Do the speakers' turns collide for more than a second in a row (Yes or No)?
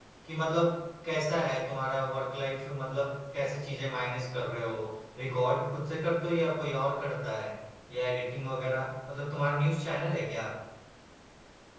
No